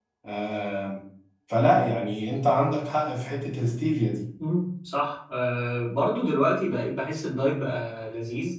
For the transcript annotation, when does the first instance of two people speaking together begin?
none

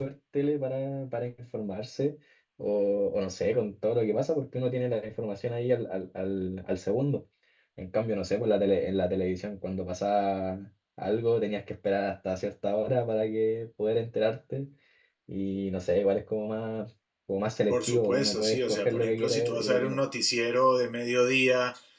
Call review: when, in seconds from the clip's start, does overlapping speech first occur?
17.7 s

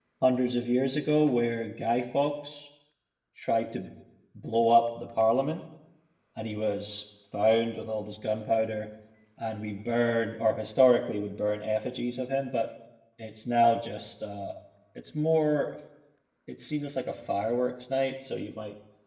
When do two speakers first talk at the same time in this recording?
none

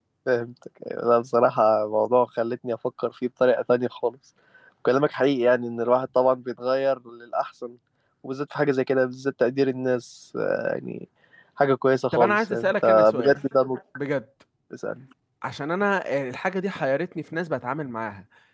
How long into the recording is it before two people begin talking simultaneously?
12.1 s

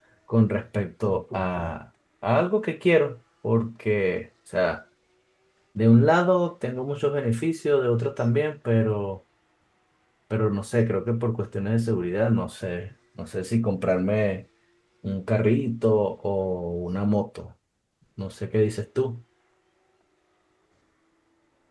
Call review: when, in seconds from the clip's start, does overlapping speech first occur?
none

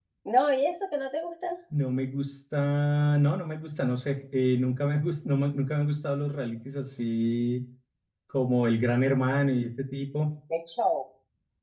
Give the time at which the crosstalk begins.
none

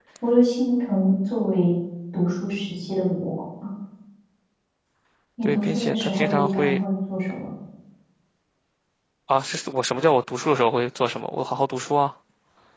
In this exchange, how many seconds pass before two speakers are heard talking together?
5.4 s

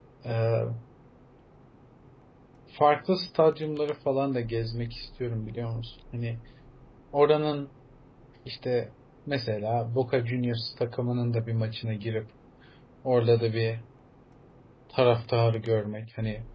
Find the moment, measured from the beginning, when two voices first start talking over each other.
none

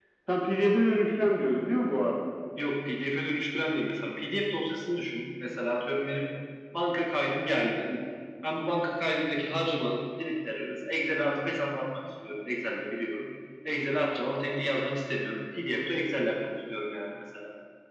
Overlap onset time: none

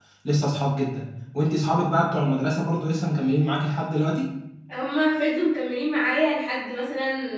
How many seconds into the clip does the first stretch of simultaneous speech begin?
none

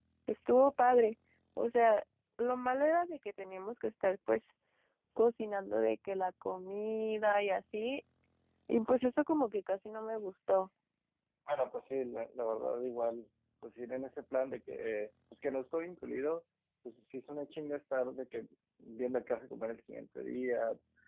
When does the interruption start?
none

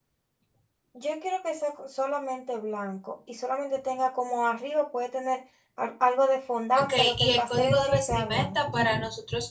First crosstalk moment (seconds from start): 6.7 s

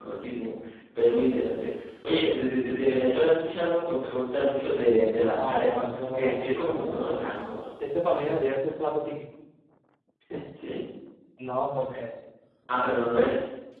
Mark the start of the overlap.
5.4 s

